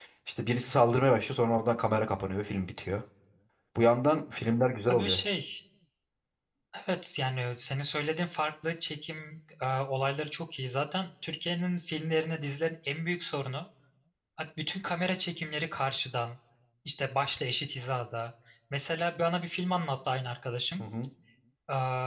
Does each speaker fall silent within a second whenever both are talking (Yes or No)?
Yes